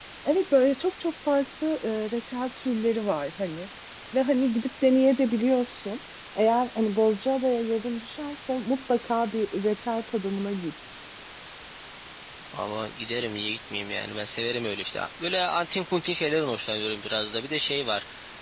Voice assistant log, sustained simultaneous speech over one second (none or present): none